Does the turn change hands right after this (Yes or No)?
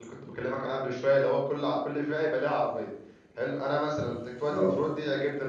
No